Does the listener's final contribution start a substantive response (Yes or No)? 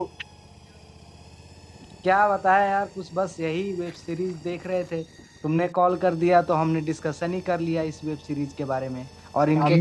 Yes